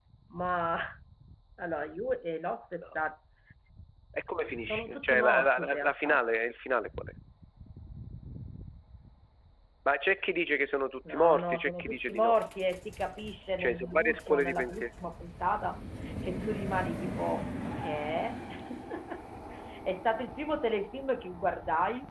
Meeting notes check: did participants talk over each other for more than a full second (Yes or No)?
Yes